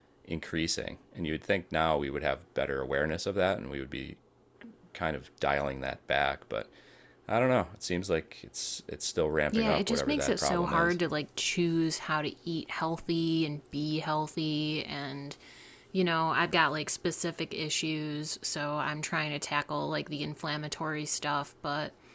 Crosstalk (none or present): present